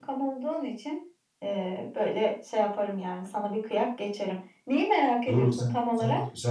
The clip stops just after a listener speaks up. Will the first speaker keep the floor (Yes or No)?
No